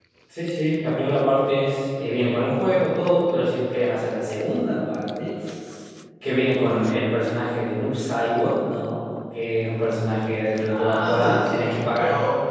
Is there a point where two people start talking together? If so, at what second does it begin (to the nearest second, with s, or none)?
11 s